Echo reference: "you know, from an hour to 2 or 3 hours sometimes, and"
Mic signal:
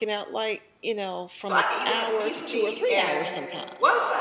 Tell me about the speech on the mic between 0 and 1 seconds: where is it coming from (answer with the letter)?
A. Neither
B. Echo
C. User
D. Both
B